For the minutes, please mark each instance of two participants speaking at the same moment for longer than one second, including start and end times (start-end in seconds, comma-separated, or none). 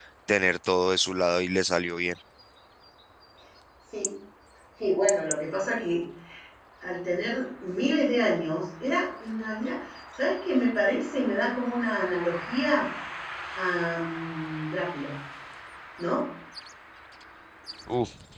none